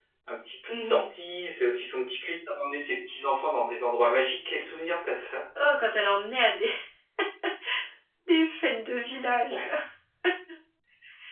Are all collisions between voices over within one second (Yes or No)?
Yes